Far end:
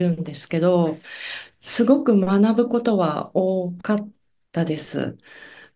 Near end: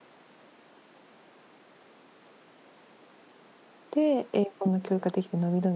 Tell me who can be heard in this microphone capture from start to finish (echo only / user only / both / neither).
user only